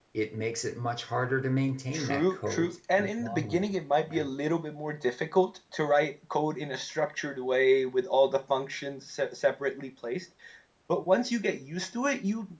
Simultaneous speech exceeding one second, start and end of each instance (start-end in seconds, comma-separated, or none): 1.9-3.6